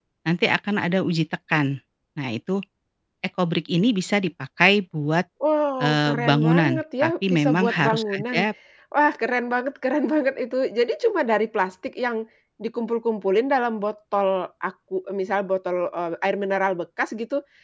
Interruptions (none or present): present